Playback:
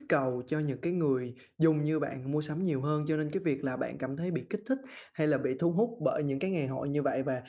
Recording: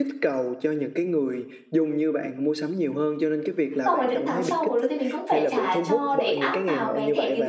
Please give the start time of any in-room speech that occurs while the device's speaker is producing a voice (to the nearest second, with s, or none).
4 s